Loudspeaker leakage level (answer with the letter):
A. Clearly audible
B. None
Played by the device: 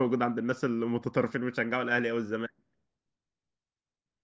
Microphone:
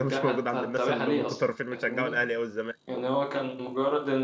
A